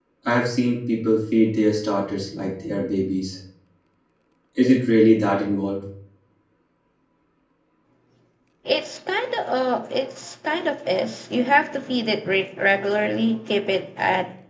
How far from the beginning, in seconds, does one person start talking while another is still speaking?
none

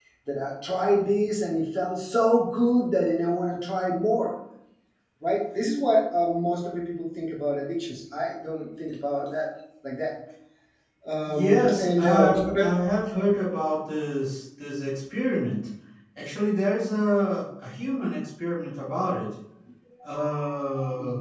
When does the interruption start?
11.3 s

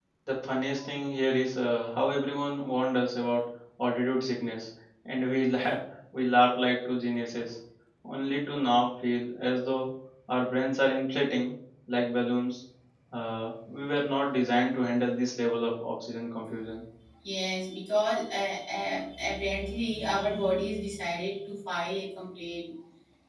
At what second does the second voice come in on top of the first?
none

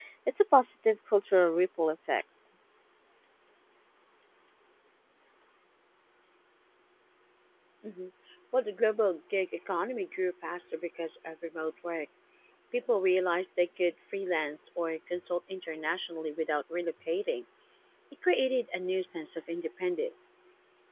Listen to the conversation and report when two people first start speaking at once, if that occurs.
none

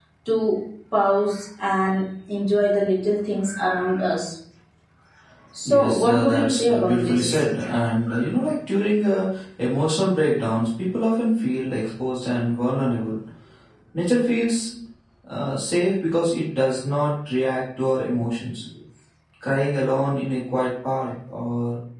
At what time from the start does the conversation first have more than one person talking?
5.6 s

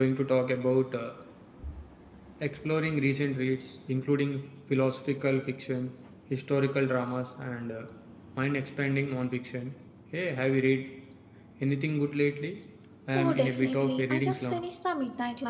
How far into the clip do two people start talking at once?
13.2 s

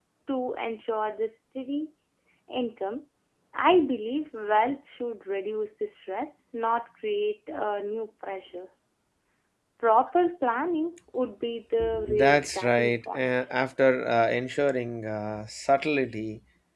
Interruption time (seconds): 12.1 s

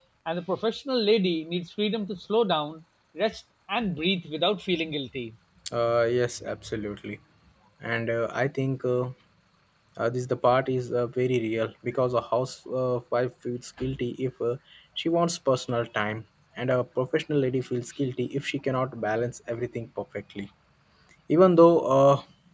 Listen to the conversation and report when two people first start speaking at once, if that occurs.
none

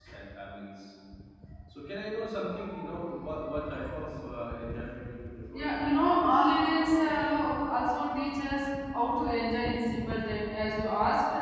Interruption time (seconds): 5.5 s

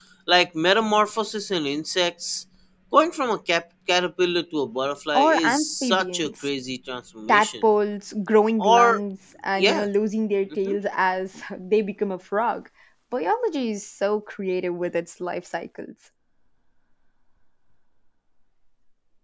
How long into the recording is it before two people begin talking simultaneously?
5.1 s

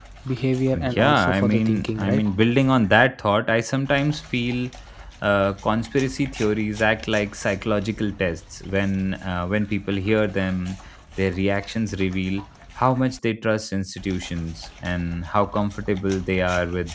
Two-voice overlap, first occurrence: 0.7 s

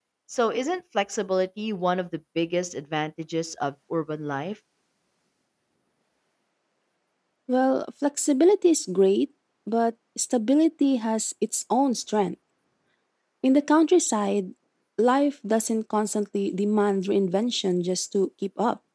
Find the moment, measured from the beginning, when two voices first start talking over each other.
none

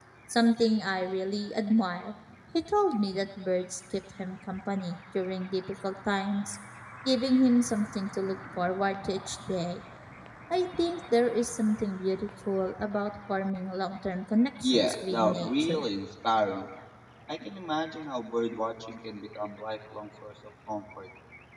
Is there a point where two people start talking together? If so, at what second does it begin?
14.6 s

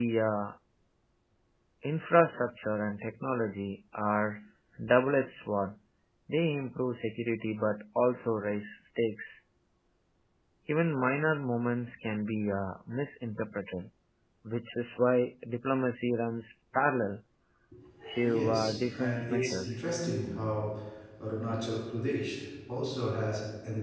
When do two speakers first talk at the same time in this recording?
18.2 s

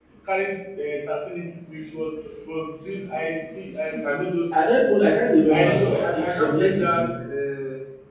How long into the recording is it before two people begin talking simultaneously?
5.5 s

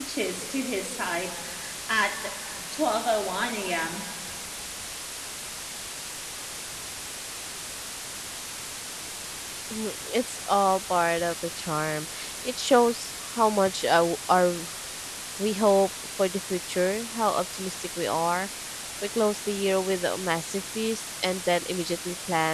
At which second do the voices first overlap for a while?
none

